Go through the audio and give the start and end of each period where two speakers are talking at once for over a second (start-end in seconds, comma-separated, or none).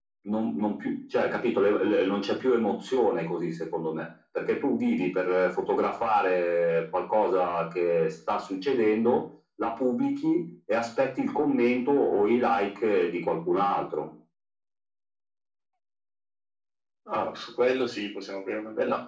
none